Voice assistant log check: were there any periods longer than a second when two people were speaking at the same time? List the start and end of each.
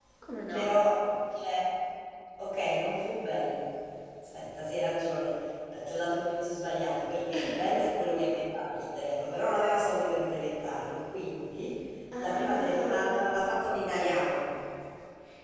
12.2-13.4

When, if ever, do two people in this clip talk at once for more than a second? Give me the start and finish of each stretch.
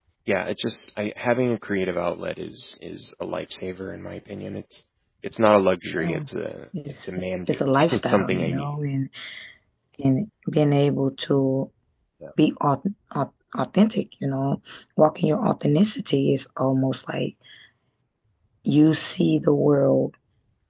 7.0-8.7

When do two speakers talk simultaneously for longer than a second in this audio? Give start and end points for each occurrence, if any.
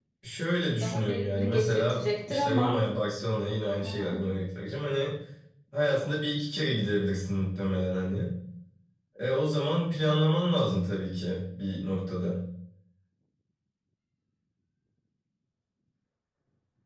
0.8-2.8

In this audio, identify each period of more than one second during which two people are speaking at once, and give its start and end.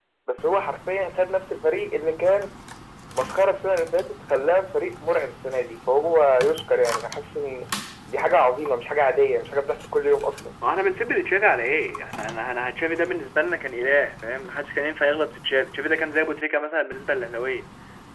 none

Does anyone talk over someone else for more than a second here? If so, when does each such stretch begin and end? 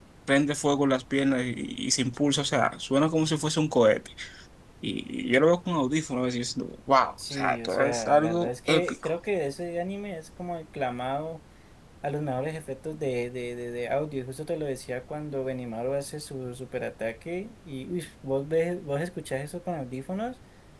7.3-8.9

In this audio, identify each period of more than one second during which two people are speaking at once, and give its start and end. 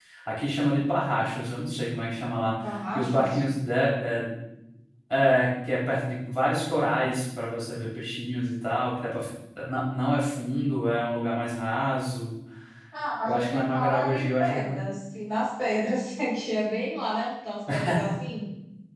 13.2-14.6

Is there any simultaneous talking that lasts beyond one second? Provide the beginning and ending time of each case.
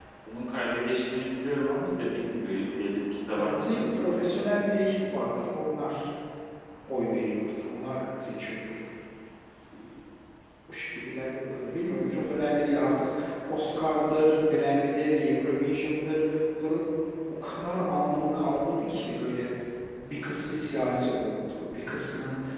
3.4-5.4

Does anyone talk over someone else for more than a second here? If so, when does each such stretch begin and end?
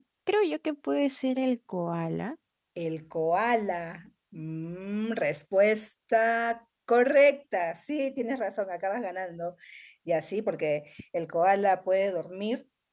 none

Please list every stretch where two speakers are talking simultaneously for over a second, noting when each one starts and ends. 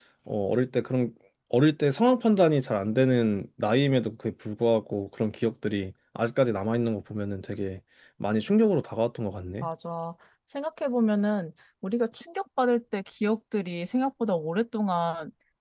none

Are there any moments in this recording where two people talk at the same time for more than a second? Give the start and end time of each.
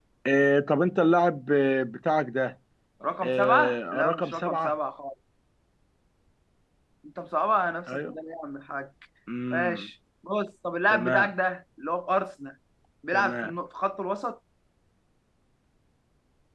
3.2-4.7

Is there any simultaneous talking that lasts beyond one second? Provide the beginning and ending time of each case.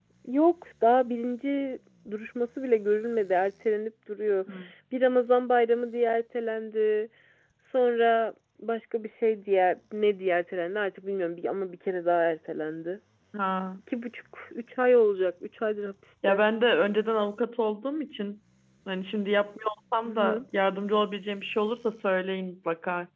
none

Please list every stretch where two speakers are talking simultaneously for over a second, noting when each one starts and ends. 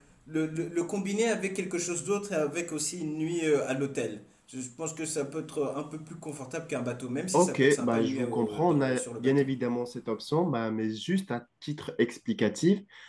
7.3-9.5

